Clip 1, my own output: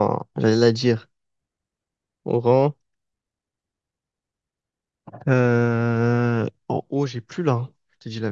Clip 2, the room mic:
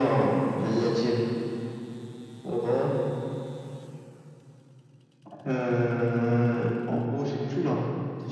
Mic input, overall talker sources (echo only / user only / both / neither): echo only